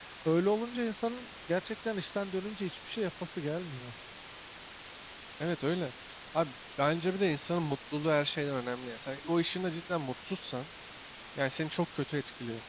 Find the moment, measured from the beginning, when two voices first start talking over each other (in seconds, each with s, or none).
none